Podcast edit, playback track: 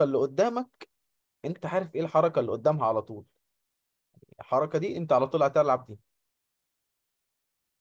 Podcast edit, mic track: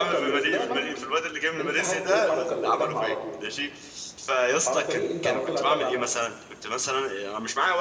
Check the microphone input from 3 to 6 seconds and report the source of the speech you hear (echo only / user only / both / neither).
both